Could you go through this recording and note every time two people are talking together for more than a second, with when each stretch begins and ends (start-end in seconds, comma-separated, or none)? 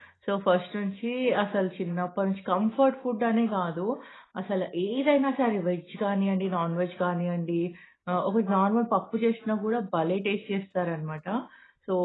none